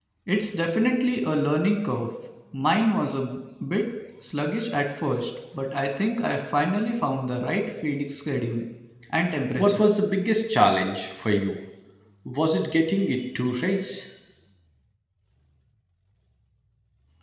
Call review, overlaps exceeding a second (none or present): none